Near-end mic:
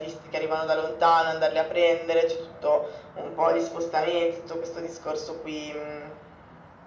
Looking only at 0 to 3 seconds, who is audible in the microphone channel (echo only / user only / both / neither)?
echo only